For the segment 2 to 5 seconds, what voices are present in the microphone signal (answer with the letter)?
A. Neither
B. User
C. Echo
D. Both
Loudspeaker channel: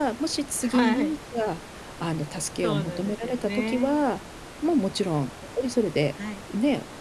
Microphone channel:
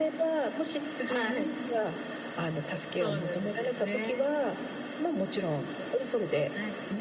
C